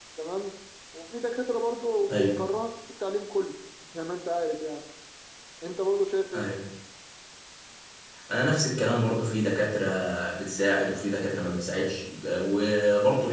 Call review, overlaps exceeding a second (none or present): none